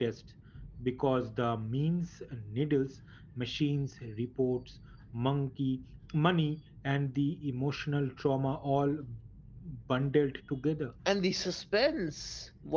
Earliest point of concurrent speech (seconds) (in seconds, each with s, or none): none